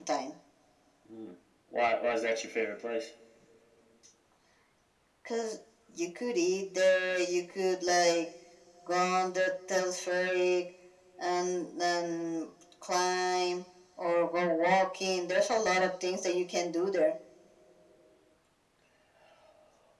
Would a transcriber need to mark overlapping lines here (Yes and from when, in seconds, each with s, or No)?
No